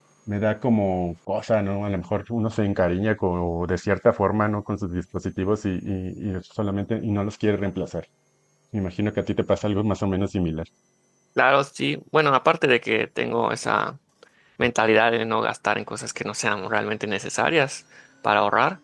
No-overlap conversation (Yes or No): Yes